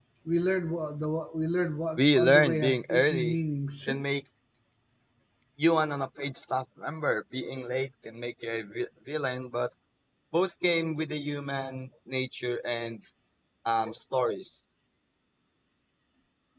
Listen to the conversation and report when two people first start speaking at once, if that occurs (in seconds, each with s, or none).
2.0 s